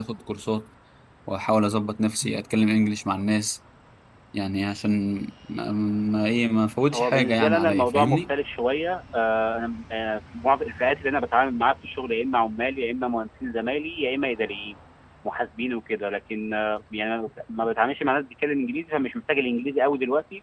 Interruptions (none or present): present